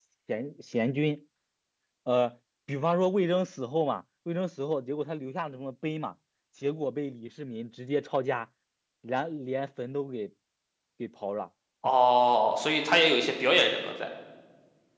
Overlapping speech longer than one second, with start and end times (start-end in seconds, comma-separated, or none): none